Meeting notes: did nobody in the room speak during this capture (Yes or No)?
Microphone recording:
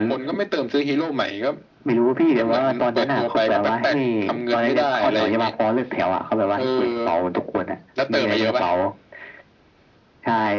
Yes